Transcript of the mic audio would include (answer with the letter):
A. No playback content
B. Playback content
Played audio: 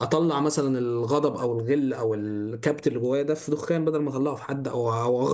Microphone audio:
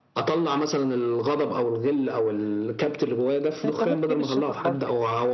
B